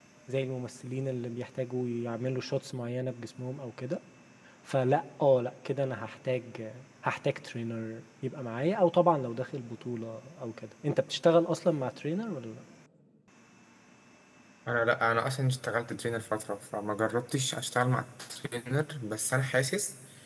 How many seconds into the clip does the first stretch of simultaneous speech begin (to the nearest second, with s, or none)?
none